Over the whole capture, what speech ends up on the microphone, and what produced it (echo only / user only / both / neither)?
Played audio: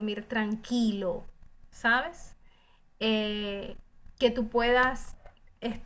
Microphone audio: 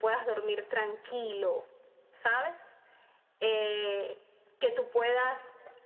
echo only